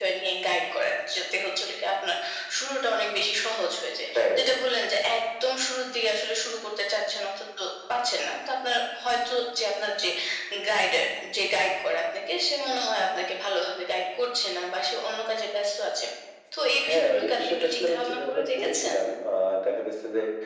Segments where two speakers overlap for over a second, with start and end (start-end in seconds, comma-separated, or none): 16.9-18.9